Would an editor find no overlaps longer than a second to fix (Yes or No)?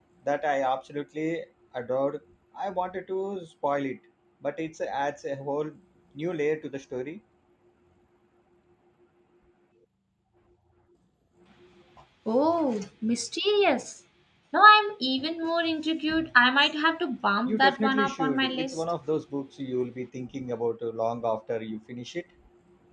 No